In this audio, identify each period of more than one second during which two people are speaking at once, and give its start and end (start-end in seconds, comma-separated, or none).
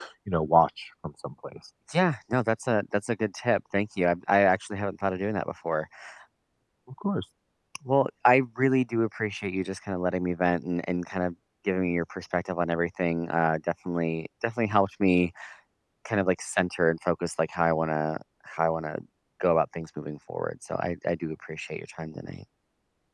none